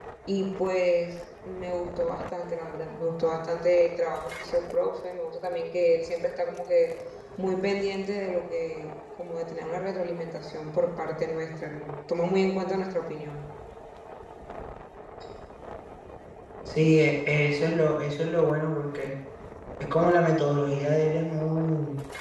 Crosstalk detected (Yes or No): No